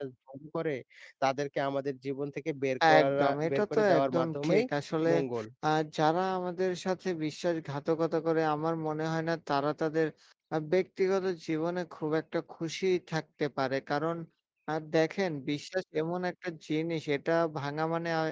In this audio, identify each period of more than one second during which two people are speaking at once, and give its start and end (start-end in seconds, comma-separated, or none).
3.0-4.6